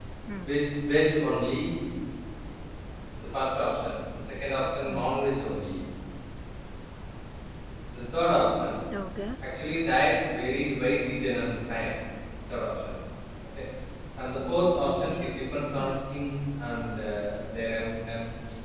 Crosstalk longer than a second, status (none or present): none